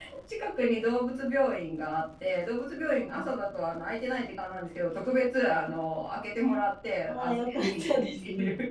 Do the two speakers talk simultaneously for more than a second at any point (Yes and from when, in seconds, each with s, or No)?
Yes, from 7.1 s